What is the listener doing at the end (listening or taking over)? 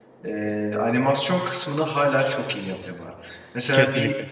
listening